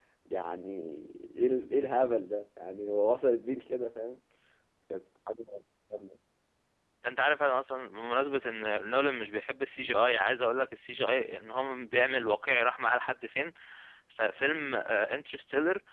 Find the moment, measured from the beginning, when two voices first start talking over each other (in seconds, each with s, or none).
none